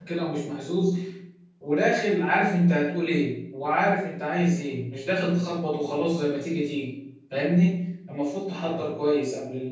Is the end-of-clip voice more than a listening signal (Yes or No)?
No